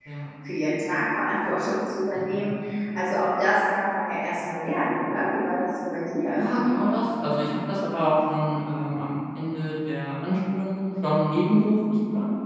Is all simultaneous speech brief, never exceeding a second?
Yes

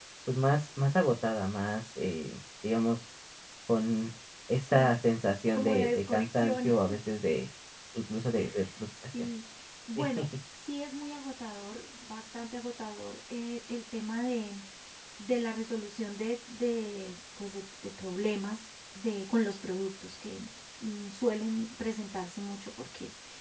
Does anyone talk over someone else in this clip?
Yes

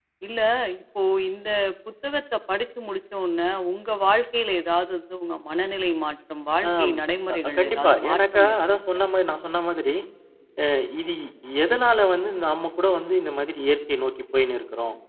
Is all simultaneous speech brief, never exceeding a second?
No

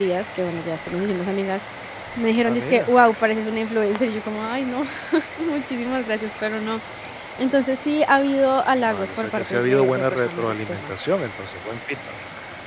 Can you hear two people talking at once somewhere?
Yes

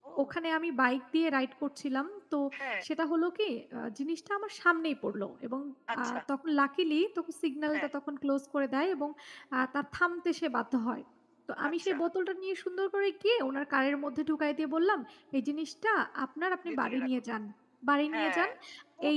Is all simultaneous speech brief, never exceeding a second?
Yes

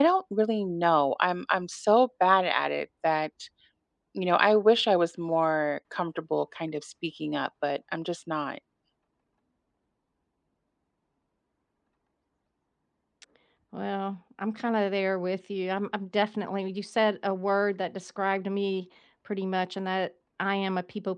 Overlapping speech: No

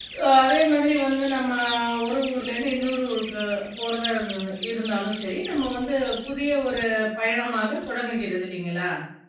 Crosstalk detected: No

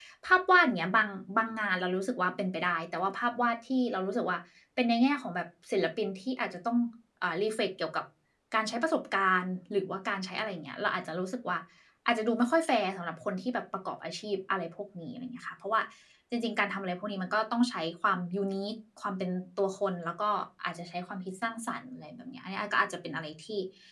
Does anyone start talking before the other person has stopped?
No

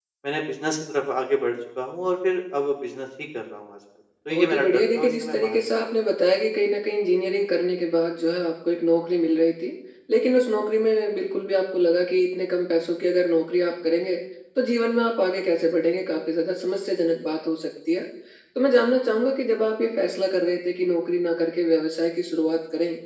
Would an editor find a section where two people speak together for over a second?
Yes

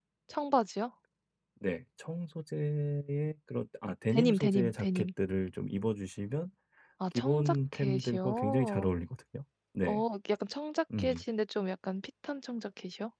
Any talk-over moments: Yes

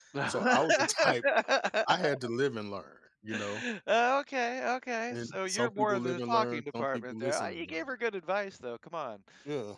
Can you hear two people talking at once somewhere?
Yes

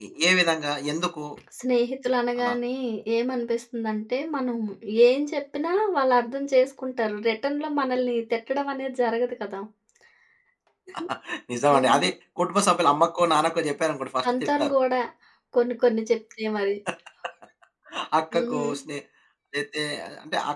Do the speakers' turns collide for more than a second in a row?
No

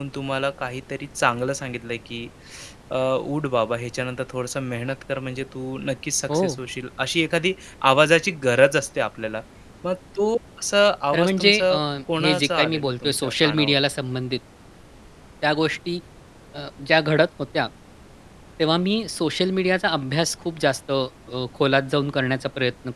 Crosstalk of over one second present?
Yes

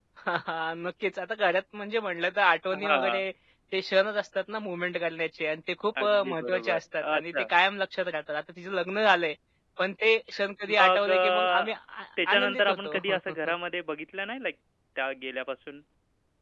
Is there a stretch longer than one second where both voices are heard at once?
Yes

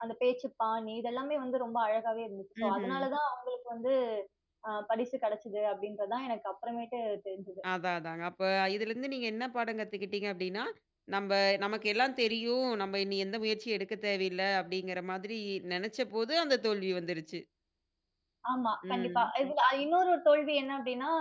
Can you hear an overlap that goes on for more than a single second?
No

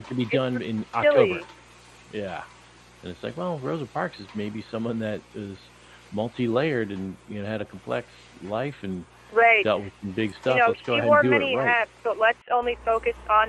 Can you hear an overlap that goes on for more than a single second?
Yes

